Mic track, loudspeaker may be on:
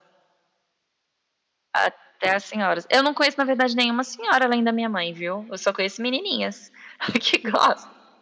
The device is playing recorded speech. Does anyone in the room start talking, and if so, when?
none

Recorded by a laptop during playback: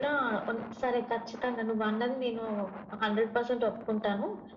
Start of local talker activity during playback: none

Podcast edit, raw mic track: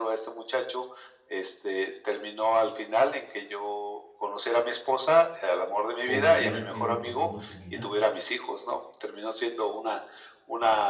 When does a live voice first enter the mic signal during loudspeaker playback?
6.0 s

